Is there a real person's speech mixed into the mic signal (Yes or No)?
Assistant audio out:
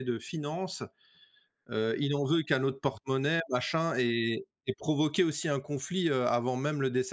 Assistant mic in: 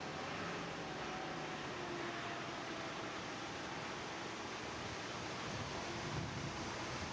No